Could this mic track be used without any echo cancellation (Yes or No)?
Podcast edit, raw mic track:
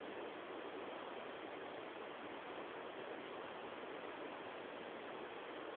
Yes